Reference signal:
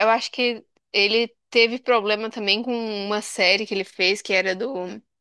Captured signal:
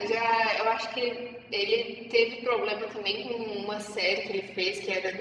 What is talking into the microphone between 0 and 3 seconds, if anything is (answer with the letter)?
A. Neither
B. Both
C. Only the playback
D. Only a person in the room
C